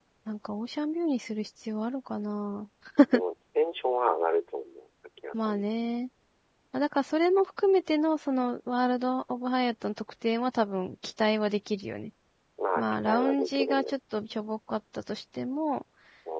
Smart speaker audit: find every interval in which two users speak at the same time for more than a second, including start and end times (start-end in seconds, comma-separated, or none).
12.8-14.0